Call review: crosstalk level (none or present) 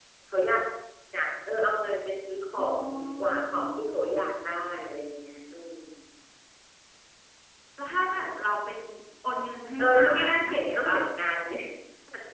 present